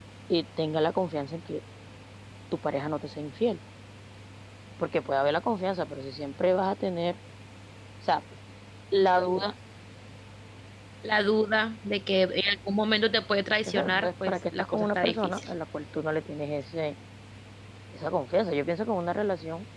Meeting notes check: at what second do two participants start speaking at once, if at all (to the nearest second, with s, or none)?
14 s